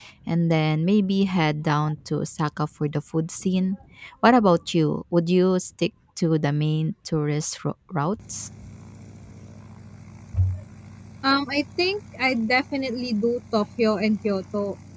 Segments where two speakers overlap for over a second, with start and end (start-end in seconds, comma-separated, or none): none